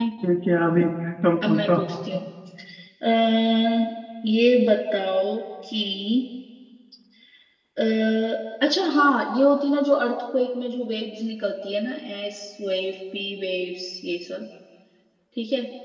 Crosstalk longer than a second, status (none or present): none